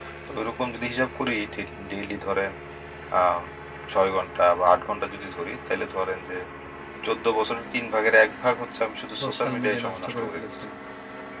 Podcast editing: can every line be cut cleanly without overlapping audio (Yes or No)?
No